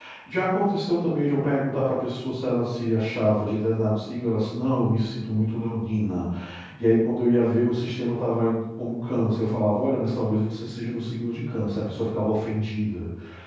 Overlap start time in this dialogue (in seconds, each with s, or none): none